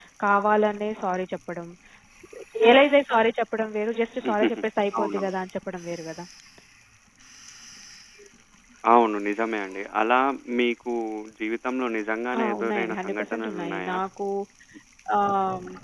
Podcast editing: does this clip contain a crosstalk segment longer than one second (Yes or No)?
Yes